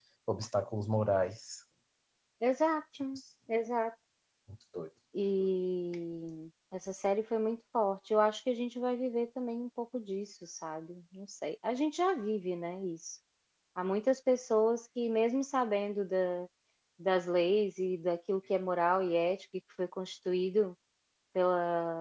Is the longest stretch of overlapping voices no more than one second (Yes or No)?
Yes